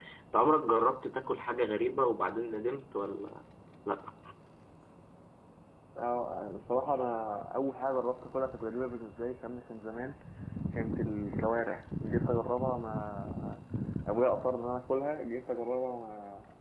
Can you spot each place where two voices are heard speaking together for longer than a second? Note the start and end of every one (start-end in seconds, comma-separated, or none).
none